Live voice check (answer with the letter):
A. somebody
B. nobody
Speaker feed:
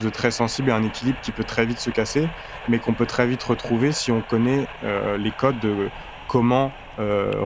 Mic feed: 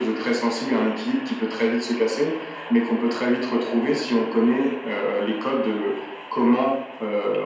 B